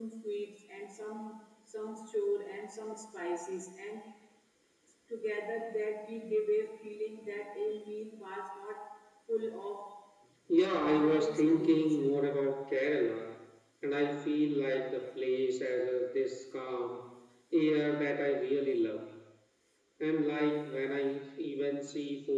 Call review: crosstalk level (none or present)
present